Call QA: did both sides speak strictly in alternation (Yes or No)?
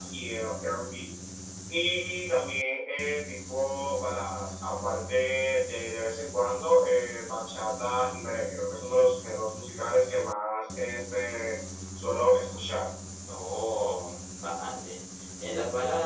Yes